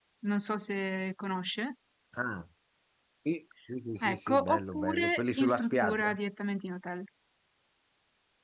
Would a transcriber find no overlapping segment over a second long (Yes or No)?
No